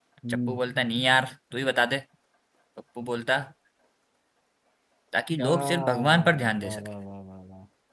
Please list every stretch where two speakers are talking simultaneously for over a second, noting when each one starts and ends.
5.4-6.9

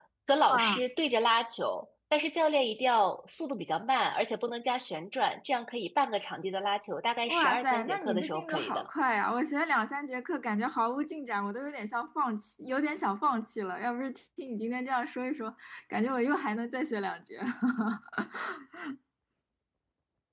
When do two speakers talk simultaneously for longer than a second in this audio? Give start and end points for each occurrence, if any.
7.3-8.9

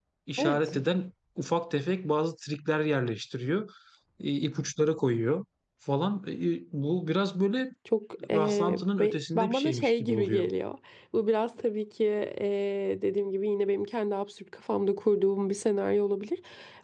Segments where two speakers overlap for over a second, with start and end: 8.3-10.5

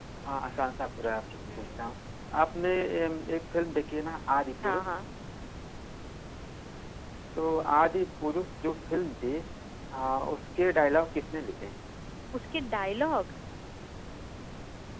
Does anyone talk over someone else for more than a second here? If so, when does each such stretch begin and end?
none

